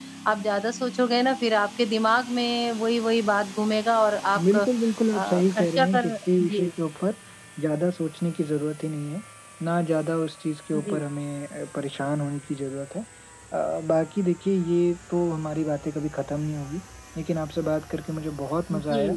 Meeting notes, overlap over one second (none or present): present